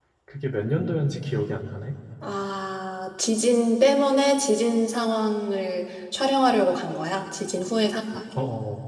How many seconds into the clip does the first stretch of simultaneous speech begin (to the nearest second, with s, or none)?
none